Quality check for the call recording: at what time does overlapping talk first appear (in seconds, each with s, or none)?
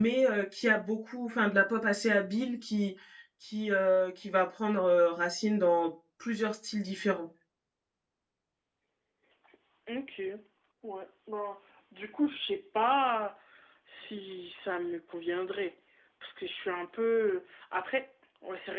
none